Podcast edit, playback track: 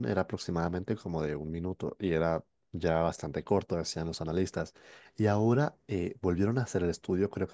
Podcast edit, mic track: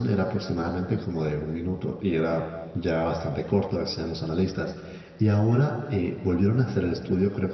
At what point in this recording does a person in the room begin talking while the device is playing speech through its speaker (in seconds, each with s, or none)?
none